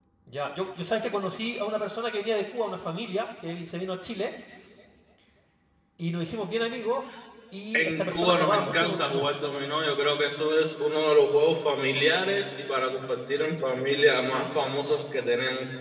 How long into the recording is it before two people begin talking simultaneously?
7.7 s

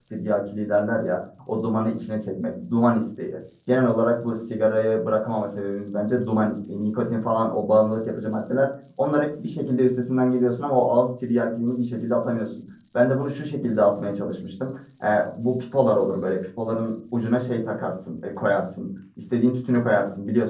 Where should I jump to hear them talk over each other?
none

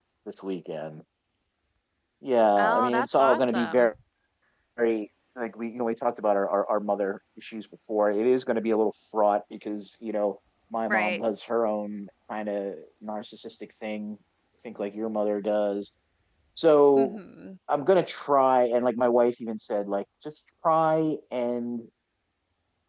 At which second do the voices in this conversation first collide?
2.6 s

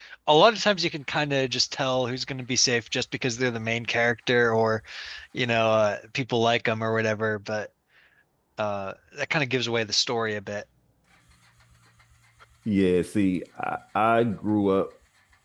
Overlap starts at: none

